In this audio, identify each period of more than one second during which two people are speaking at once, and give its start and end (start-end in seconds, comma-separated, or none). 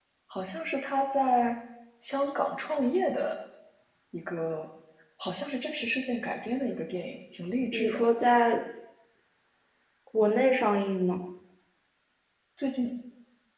none